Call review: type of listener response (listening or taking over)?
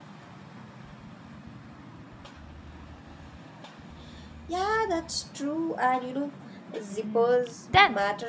taking over